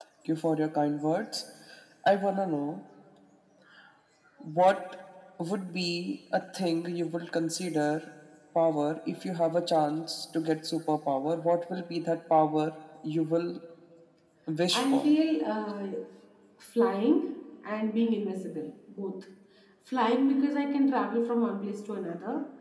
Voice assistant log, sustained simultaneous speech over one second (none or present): none